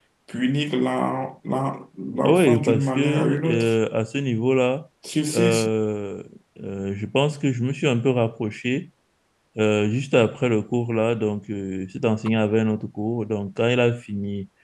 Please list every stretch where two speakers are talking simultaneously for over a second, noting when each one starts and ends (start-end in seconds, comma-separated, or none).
2.2-3.7